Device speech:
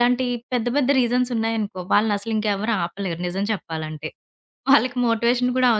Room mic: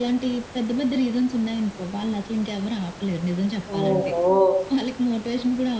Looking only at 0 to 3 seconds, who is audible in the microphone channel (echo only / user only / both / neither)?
echo only